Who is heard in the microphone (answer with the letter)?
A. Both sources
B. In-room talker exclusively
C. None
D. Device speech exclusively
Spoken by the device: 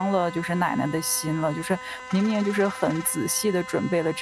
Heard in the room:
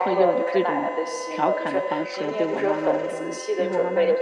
A